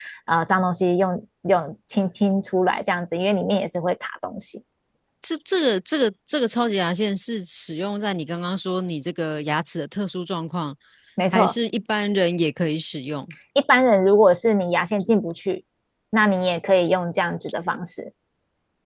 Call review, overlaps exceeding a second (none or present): none